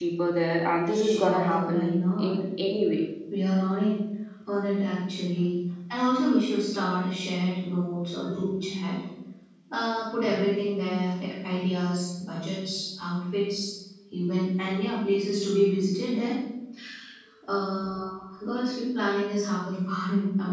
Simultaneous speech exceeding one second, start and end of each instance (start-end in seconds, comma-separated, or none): 0.9-2.3